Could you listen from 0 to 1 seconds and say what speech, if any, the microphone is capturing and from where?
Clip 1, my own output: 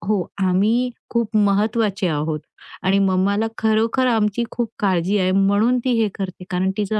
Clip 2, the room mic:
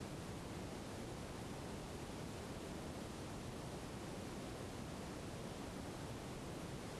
neither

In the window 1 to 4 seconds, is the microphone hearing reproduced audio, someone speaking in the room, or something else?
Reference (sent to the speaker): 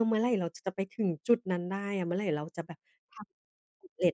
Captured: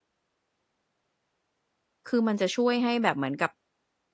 user only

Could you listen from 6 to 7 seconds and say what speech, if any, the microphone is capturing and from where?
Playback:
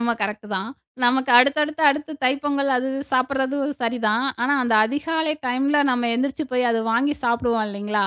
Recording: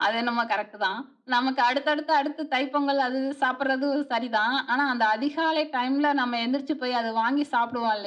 echo only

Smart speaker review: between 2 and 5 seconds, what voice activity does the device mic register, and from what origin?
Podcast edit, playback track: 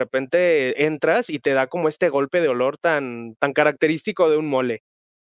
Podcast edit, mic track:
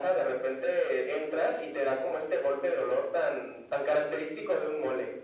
echo only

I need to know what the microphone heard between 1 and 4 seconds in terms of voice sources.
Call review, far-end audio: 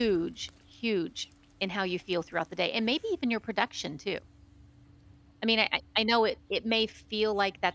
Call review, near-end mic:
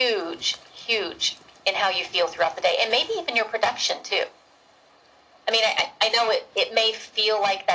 echo only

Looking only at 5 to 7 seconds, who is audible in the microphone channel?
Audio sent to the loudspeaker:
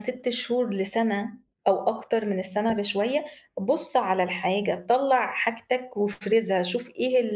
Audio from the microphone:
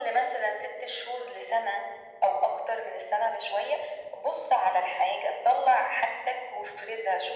echo only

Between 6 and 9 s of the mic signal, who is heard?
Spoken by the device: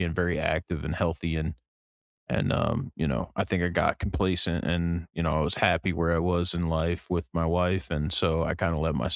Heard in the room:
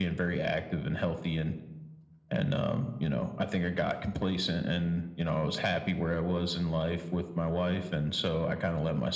echo only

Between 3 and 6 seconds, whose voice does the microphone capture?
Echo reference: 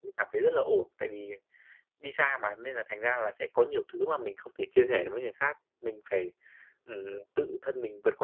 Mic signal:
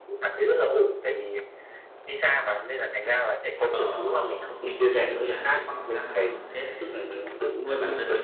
both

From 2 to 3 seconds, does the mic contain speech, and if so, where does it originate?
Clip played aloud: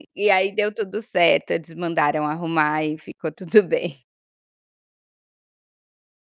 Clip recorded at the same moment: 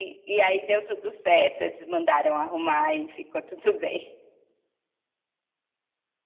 echo only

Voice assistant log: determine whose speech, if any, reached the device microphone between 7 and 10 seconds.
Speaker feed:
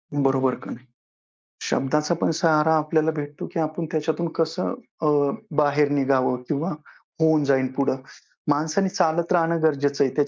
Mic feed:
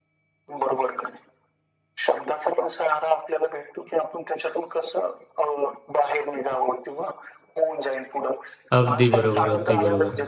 both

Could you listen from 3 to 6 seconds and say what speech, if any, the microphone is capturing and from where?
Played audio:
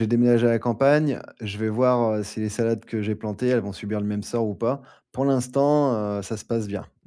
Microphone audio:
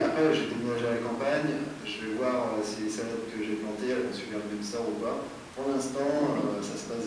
echo only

